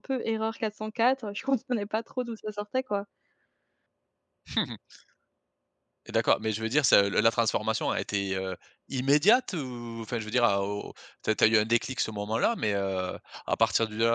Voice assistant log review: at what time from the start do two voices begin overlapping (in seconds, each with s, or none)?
none